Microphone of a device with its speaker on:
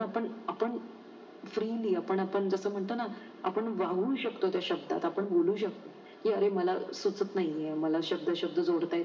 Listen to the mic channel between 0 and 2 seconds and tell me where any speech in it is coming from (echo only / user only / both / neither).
echo only